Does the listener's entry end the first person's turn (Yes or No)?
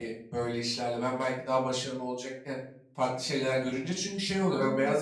No